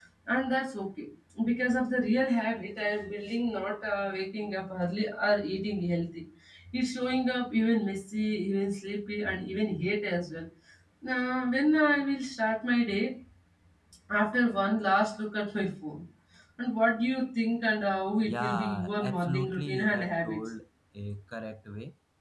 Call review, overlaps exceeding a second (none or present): present